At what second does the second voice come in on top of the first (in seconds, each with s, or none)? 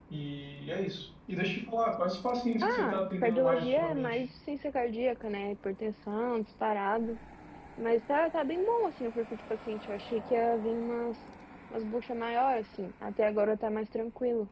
2.6 s